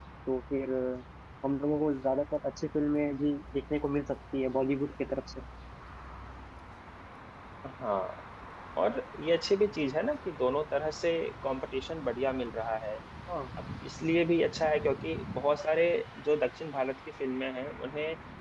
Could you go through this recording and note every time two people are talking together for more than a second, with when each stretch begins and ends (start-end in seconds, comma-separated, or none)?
none